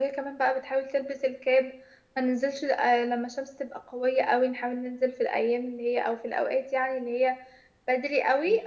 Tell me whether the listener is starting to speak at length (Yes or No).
No